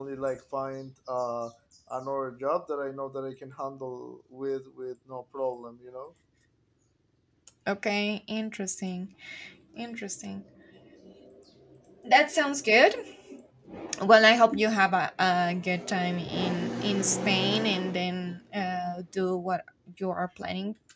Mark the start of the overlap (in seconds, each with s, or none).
none